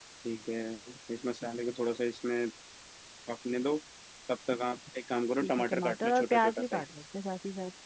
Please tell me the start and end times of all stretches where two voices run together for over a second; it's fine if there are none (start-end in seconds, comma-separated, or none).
5.4-6.8